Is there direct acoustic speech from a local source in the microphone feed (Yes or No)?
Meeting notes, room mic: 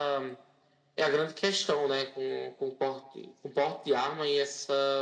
No